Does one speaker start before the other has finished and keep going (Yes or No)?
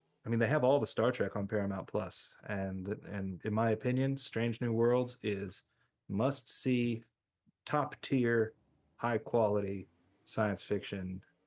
No